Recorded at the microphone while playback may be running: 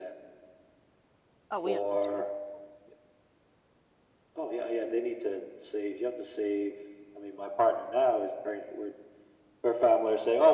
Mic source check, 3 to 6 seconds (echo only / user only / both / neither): echo only